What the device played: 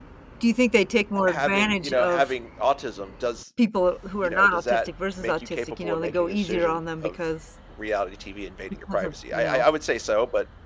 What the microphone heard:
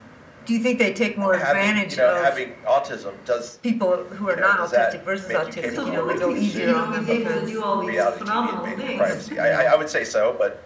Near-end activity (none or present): present